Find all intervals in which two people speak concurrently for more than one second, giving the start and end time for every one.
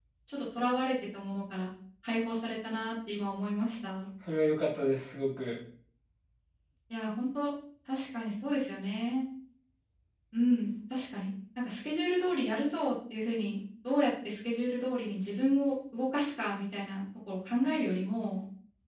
none

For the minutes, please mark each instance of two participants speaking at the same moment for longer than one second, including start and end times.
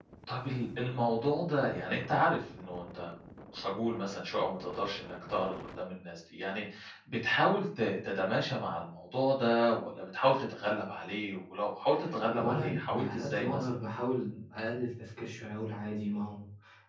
12.4-13.7

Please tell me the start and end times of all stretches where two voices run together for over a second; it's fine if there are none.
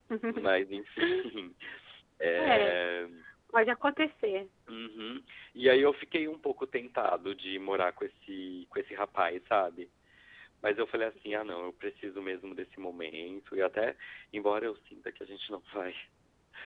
none

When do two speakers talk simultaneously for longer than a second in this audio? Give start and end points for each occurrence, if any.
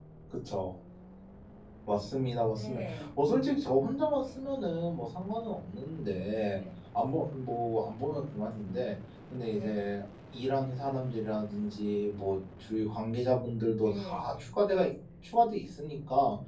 none

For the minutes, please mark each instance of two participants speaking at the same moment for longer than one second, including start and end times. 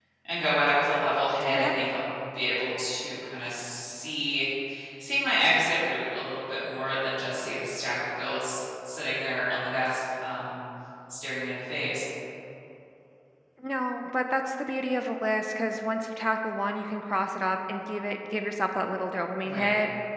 none

